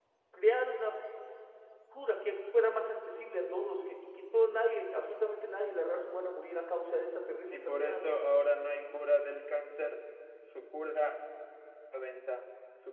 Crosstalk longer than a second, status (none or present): none